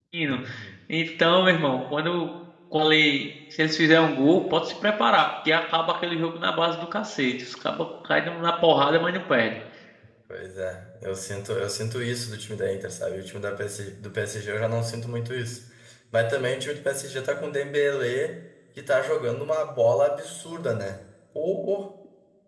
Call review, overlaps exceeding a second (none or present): none